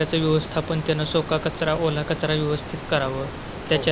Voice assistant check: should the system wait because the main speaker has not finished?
Yes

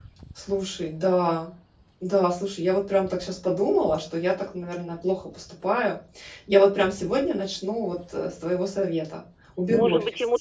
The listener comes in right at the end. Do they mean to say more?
Yes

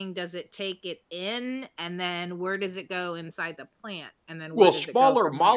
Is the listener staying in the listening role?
No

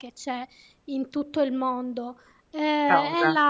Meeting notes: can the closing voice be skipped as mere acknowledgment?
Yes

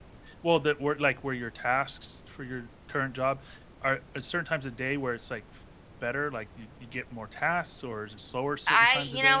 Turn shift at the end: Yes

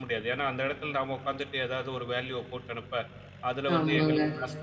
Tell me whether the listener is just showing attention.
Yes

